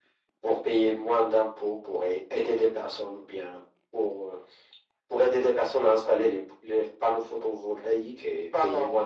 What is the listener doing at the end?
taking over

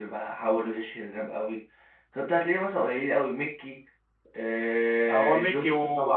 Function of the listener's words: taking over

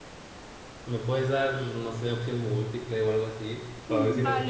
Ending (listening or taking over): taking over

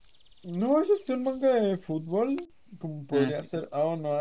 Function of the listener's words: listening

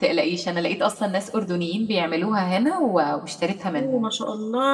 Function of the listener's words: taking over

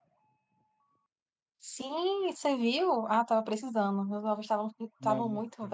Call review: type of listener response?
listening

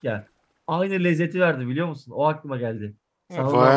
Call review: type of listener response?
taking over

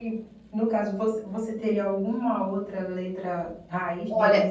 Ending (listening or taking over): taking over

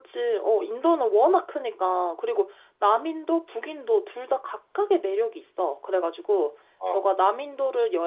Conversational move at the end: listening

